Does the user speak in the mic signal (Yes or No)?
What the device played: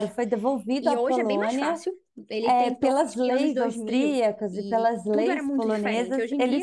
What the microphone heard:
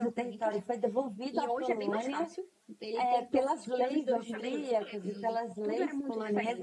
Yes